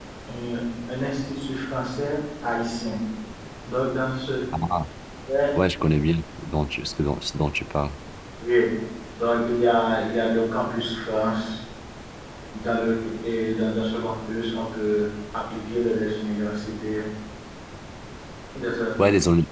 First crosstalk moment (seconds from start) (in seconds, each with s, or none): none